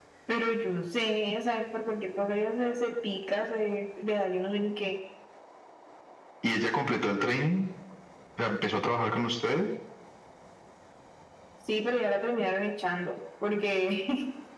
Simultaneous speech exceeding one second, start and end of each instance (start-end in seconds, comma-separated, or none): none